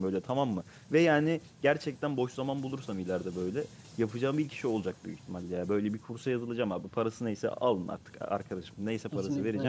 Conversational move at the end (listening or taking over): taking over